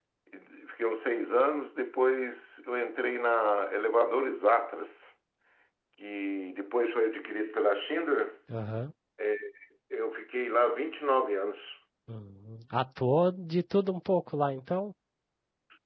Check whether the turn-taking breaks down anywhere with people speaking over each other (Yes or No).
No